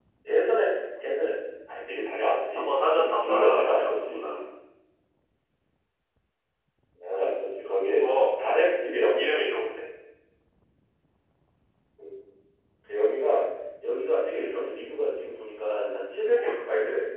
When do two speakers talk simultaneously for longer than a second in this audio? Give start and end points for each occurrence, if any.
2.6-4.4

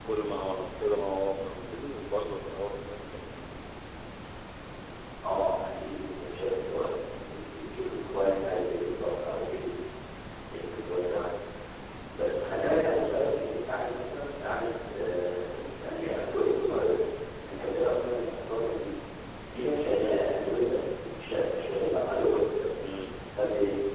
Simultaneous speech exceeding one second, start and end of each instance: none

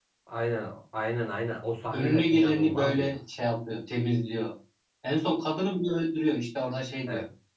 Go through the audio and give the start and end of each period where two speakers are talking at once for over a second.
1.9-3.2

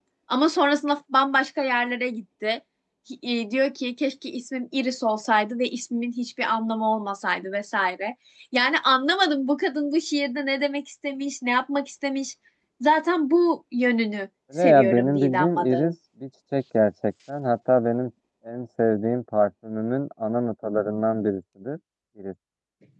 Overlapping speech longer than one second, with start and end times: 14.6-15.9

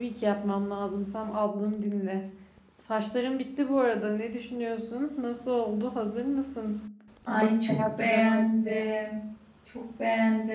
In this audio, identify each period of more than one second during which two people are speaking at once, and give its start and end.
7.3-8.9

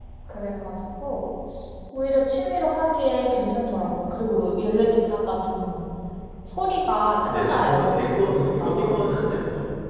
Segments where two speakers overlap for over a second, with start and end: 7.3-9.4

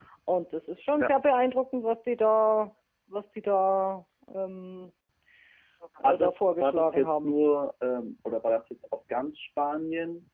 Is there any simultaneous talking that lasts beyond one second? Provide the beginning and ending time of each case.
6.0-7.3

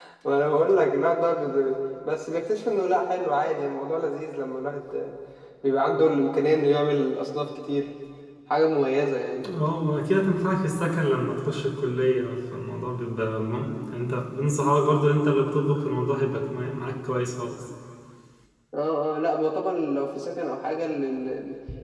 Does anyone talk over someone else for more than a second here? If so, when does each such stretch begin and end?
none

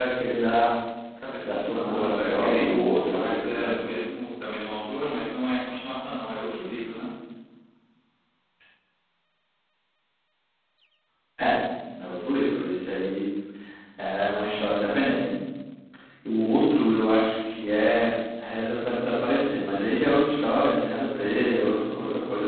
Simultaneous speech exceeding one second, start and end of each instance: 1.4-3.9

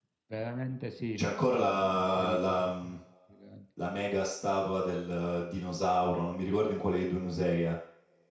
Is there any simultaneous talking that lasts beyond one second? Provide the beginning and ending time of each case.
1.1-2.7

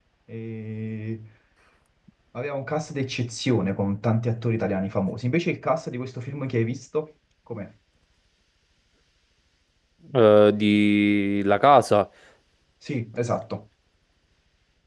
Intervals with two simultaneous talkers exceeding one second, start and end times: none

